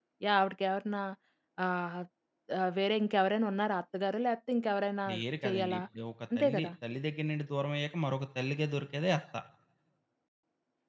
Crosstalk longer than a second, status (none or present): none